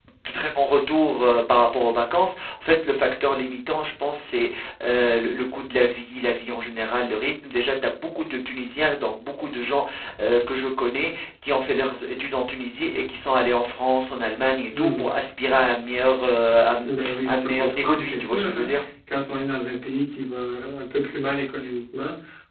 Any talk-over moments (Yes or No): Yes